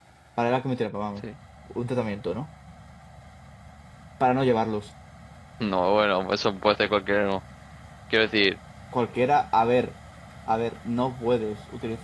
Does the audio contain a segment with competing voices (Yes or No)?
No